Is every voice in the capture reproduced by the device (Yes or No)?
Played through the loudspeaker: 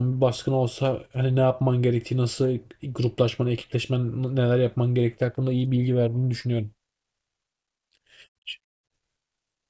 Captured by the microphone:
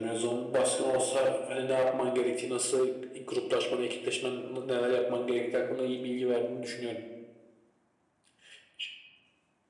Yes